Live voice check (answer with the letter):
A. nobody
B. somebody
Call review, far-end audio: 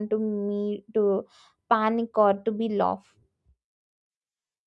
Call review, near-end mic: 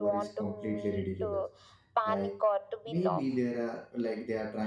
B